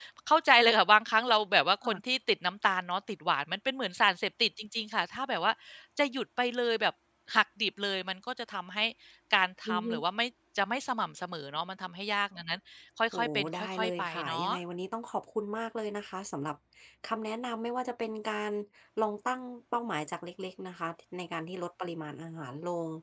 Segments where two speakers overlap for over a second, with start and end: 13.1-14.5

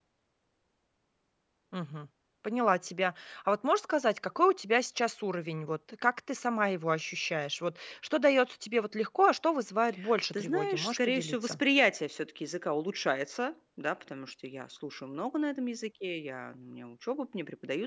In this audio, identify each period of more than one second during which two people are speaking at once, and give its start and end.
10.3-11.6

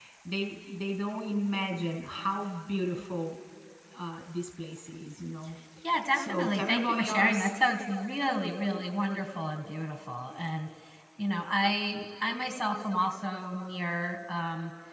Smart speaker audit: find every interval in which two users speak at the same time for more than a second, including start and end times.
6.1-7.5

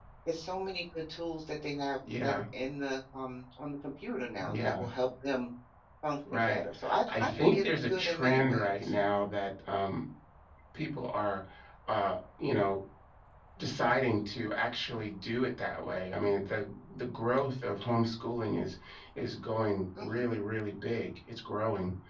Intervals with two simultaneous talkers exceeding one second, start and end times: 7.1-8.9

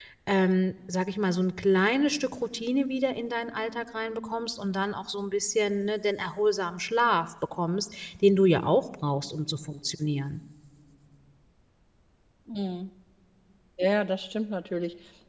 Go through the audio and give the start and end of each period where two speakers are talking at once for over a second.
none

